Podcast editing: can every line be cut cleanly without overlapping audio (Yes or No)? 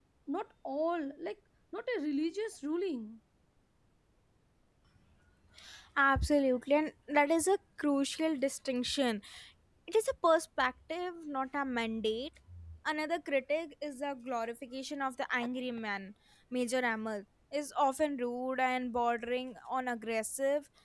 Yes